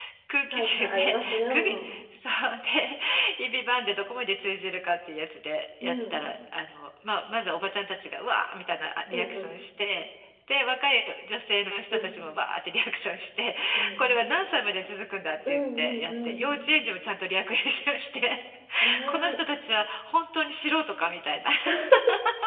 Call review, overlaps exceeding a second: present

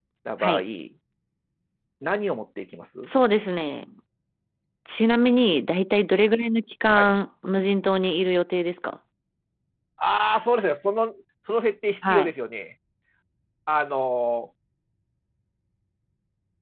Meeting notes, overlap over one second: none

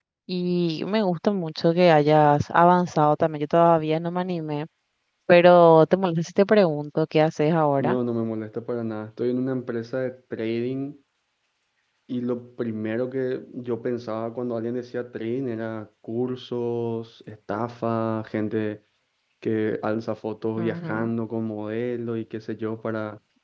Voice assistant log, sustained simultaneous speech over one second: none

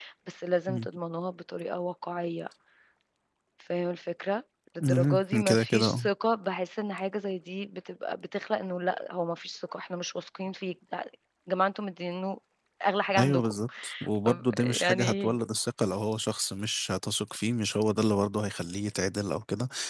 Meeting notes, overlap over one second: present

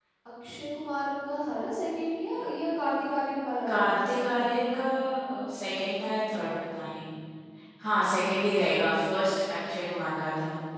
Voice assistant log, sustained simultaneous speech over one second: none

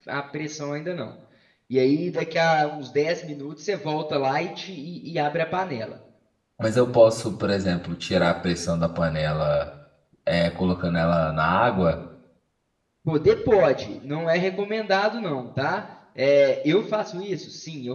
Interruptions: none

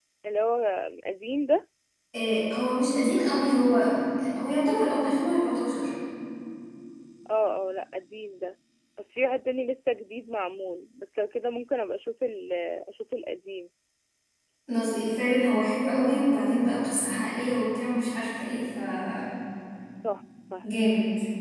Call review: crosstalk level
none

